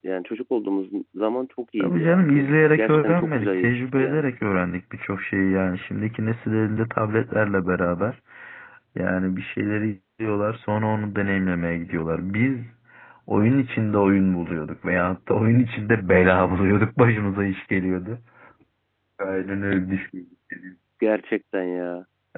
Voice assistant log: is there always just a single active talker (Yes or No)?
No